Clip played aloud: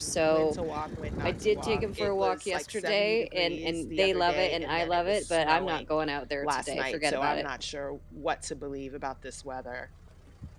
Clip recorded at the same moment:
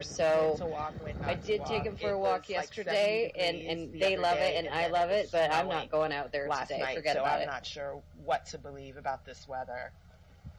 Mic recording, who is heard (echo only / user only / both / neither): echo only